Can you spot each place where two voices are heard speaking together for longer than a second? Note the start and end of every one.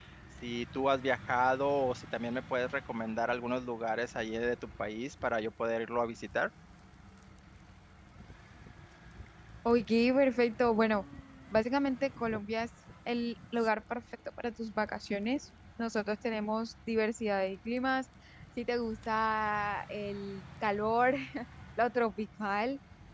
none

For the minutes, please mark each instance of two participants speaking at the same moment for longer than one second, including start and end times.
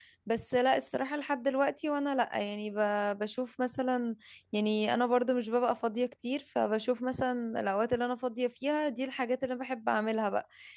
none

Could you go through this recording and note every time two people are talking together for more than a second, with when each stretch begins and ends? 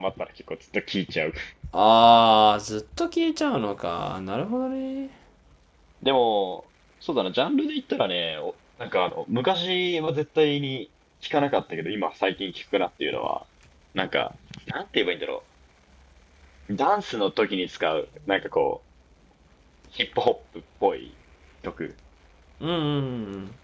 none

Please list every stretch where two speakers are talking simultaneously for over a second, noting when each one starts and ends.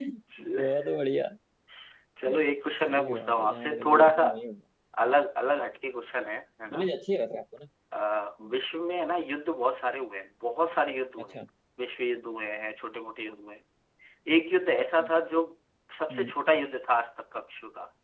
2.9-4.2

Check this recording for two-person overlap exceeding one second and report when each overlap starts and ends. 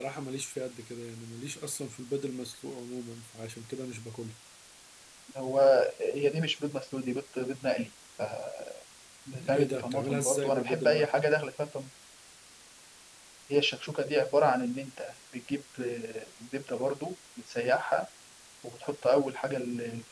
9.5-11.1

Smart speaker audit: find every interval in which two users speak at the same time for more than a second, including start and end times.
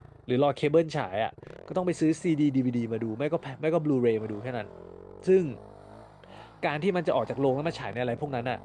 none

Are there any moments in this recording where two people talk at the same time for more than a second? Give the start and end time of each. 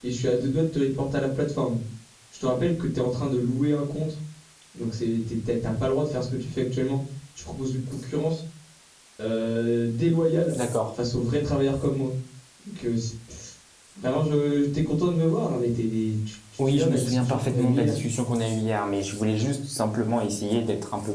16.6-18.0

